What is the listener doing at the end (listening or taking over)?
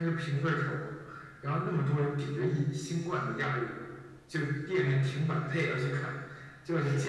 listening